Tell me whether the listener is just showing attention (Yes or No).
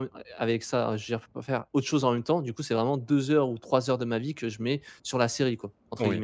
No